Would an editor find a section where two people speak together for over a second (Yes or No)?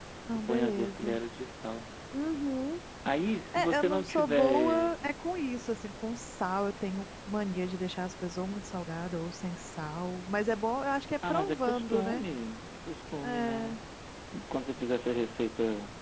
Yes